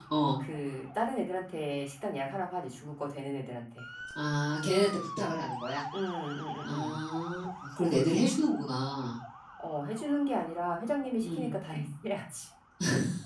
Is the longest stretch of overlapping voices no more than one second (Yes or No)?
Yes